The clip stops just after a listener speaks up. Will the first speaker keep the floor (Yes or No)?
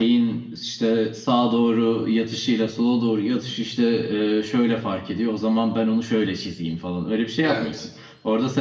Yes